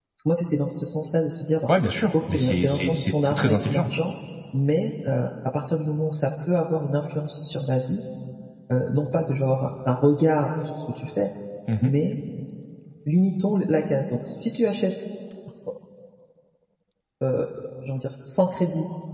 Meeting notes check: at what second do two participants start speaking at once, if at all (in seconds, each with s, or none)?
2.3 s